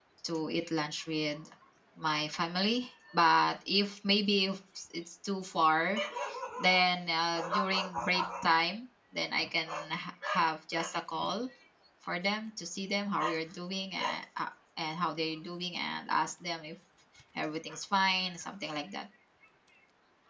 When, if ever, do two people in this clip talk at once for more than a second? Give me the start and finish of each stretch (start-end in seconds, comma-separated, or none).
none